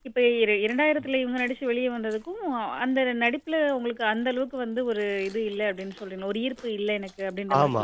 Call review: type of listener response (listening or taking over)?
taking over